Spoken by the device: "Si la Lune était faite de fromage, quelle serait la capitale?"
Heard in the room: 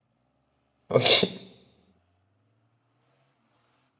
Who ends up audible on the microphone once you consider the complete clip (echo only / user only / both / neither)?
user only